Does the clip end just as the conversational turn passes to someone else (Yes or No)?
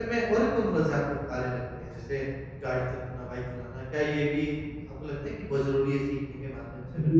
Yes